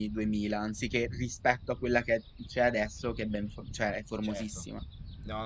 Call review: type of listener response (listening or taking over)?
taking over